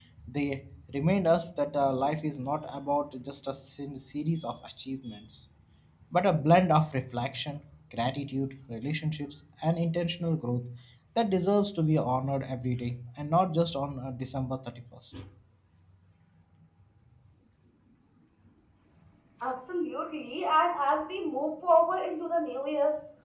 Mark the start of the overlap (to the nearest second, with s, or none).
none